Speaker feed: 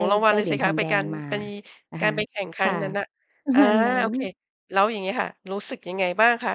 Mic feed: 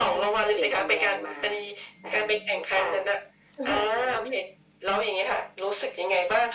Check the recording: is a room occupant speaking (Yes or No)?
No